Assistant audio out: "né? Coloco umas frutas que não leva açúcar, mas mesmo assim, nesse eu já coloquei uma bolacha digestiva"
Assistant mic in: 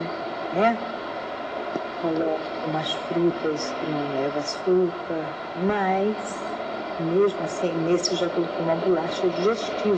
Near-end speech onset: none

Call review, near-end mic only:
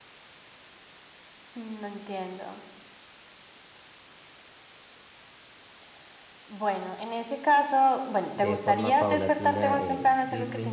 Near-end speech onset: 8.3 s

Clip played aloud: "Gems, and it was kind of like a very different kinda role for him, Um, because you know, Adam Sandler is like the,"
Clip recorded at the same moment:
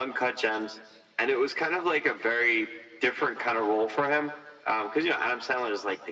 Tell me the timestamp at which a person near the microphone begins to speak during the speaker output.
none

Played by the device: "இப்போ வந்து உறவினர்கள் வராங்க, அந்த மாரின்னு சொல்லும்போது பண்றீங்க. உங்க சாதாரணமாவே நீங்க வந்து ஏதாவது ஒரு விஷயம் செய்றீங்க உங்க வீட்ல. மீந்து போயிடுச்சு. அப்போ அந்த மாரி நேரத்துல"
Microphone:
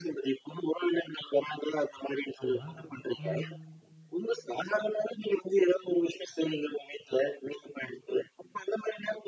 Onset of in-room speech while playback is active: 2.4 s

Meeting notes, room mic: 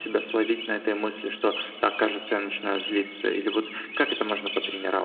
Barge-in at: none

